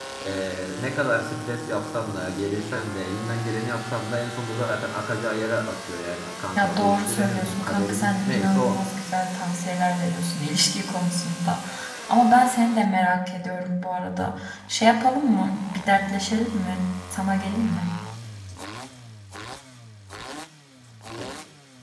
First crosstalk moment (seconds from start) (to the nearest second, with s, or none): 7 s